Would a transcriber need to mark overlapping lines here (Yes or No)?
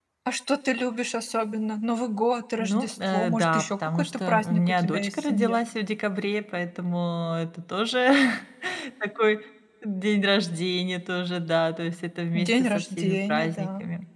Yes